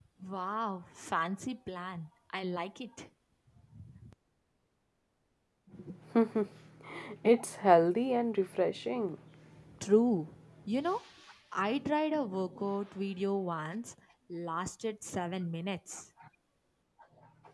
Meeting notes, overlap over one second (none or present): none